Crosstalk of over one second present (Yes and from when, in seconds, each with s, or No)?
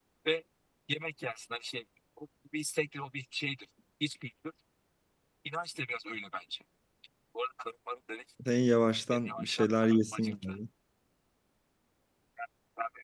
Yes, from 9.1 s